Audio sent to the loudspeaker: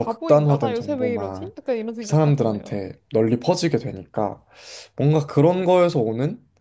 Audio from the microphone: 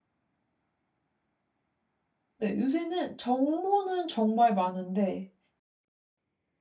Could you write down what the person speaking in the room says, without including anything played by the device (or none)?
네, 요새는 정보는 정말 많은데